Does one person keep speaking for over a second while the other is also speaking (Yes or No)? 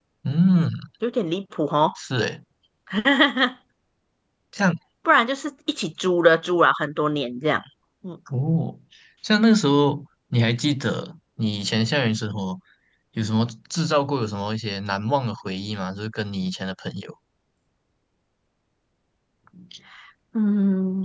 No